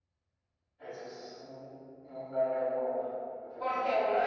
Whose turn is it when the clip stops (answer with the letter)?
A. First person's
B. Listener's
B